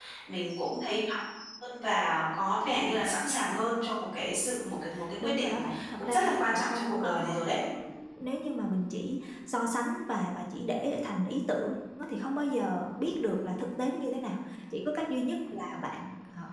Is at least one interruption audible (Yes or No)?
Yes